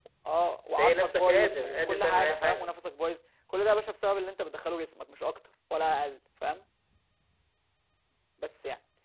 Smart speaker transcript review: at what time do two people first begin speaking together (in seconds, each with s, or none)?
0.8 s